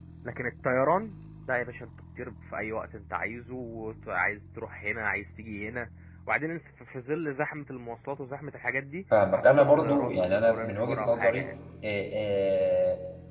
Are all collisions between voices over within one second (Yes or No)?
No